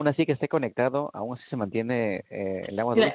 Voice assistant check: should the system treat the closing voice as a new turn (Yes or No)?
Yes